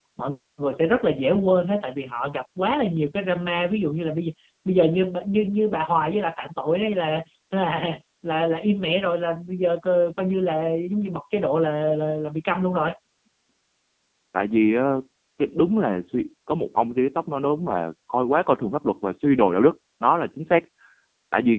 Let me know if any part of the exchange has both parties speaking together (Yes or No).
No